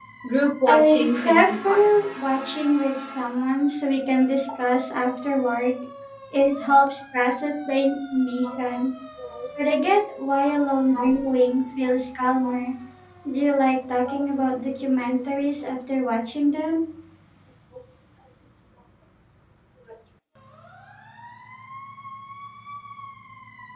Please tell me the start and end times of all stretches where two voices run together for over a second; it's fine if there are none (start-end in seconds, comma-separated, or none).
0.7-2.0